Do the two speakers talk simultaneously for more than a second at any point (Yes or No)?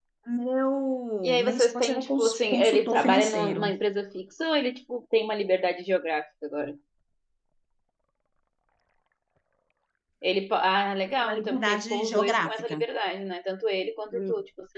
Yes